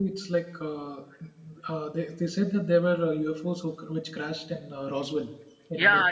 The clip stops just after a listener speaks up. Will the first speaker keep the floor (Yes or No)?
No